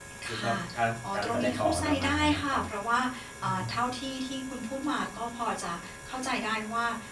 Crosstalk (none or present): present